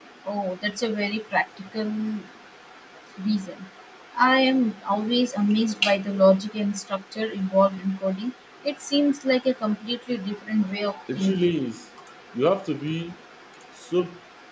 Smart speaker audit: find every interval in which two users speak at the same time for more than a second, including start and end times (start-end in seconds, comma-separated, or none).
none